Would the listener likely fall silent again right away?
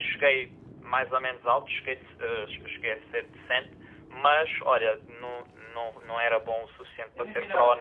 No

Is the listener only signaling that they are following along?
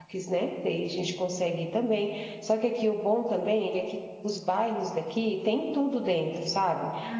No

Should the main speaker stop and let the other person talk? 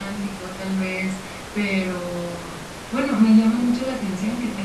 No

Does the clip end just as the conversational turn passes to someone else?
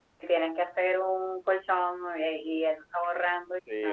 Yes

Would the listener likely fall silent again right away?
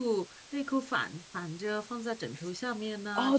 No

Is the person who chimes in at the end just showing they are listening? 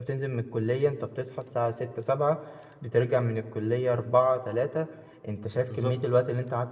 Yes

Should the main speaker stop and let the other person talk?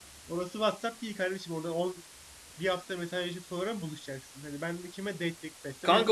Yes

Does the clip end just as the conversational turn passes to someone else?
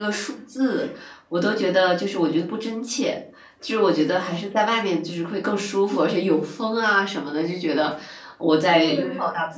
No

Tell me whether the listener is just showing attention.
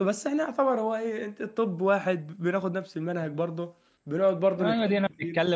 No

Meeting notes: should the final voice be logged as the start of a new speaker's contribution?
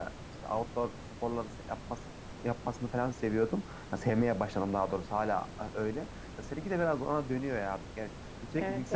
No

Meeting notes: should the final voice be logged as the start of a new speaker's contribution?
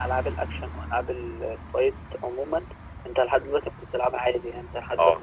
No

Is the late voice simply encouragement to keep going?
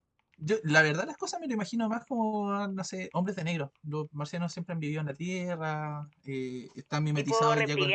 Yes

